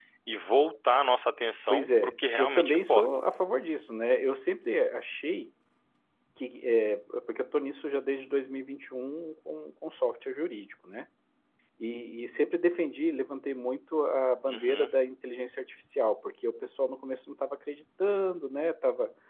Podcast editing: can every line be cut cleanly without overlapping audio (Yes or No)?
No